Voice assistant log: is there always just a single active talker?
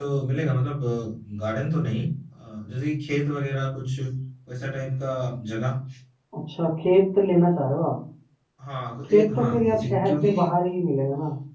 No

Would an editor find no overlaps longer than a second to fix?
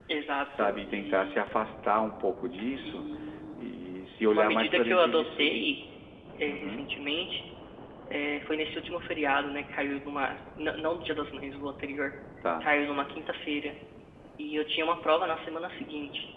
No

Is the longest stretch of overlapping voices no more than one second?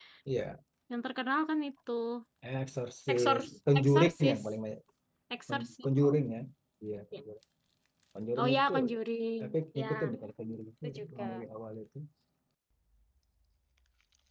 No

